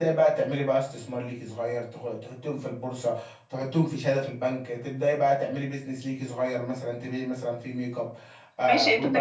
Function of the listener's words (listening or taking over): taking over